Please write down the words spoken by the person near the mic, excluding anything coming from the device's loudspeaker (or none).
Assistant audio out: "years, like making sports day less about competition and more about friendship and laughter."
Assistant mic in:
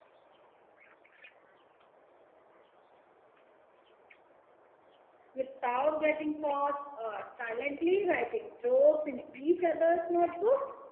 without getting caught, or silently writing jokes in each other's notebook,